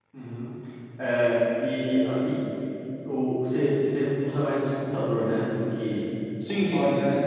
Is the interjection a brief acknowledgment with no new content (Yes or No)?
No